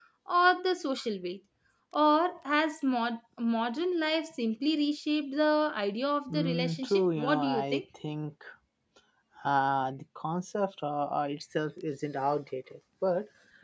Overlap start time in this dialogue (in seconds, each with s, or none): 6.3 s